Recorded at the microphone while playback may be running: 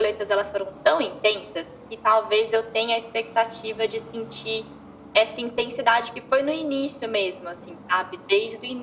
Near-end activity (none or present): none